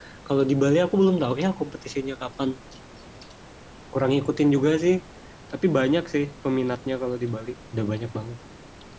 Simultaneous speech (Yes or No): No